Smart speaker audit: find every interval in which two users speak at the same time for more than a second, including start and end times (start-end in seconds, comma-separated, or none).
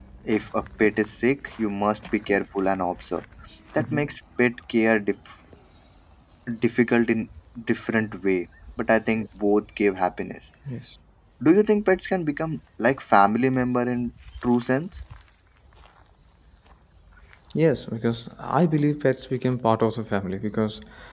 none